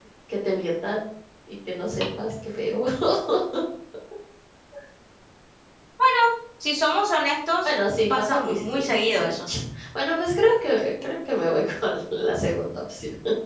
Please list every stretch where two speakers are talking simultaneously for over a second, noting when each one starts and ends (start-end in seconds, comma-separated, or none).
8.1-9.4